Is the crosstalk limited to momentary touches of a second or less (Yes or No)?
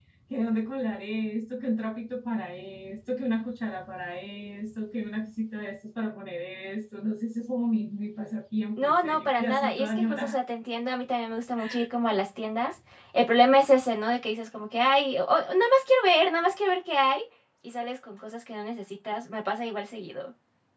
No